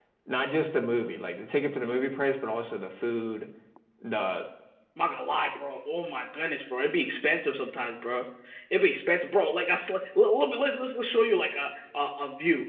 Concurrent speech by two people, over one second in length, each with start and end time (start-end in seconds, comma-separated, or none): none